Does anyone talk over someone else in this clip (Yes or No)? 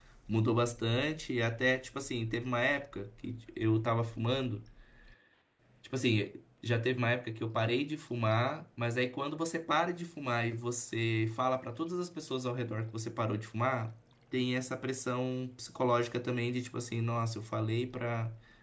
No